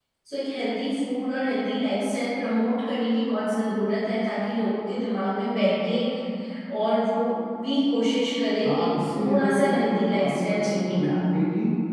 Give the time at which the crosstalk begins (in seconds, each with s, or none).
8.6 s